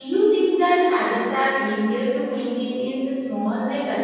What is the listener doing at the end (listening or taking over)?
taking over